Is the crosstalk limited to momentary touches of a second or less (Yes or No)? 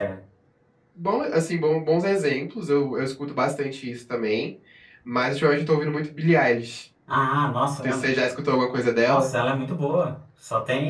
Yes